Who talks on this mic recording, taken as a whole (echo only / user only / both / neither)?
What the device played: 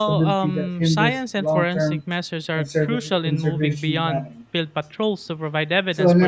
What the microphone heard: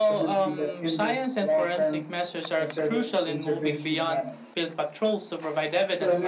echo only